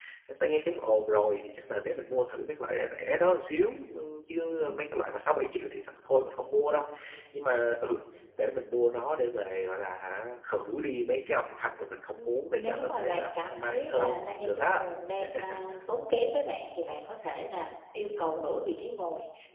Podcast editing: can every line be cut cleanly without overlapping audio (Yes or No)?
No